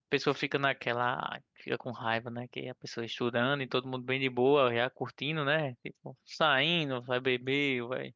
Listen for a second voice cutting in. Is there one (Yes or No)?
No